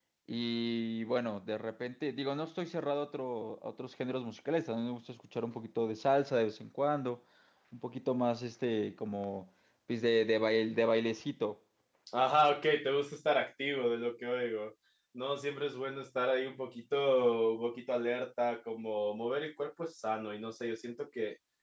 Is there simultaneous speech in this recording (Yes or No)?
No